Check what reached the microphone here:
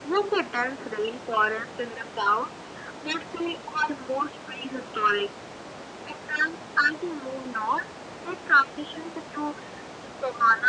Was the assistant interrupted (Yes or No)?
No